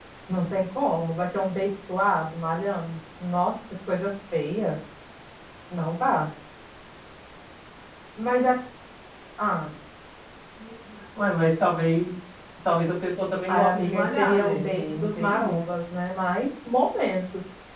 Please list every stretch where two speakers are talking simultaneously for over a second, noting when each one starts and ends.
13.5-15.6

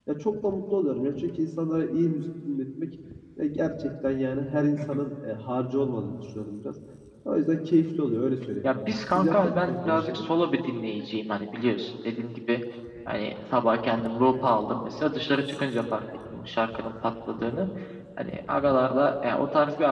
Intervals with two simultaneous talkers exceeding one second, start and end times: 8.6-10.2

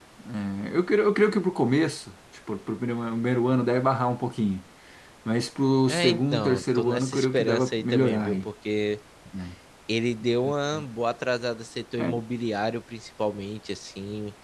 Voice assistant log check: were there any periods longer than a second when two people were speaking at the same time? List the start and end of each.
5.9-8.5

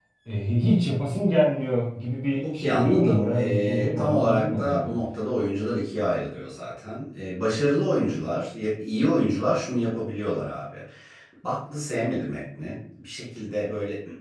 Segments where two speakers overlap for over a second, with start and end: 2.6-4.9

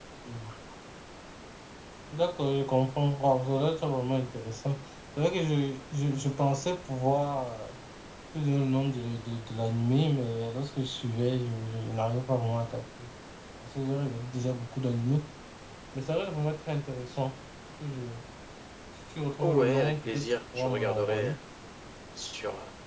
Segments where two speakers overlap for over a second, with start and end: 19.4-21.3

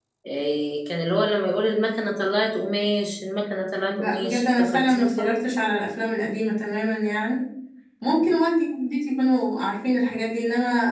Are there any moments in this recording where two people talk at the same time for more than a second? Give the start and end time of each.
3.9-5.4

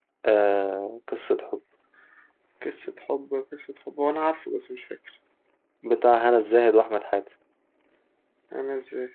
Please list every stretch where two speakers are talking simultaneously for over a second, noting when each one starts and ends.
none

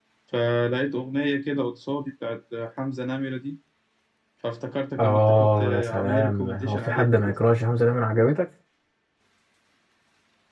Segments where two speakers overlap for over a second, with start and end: 5.0-7.3

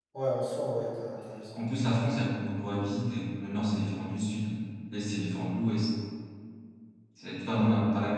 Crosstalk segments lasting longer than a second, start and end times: none

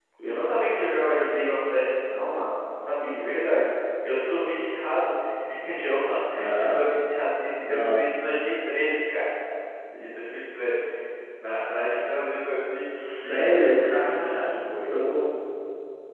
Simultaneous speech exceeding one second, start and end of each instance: 13.0-14.5

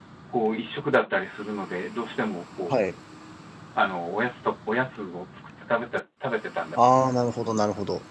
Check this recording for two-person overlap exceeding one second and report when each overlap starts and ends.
none

